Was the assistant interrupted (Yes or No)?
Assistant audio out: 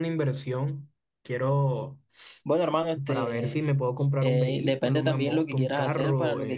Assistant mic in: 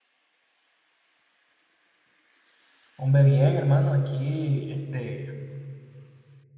Yes